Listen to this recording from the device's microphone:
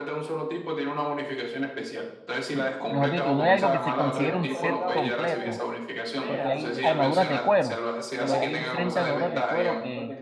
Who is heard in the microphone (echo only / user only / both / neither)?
both